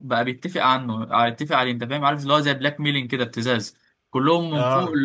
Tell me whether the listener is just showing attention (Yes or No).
Yes